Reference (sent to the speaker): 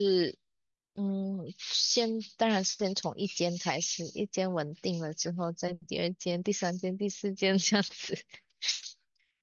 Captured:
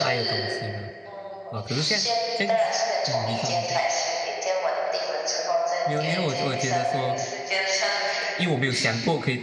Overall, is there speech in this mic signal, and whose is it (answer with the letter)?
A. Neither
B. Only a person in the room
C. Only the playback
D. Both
D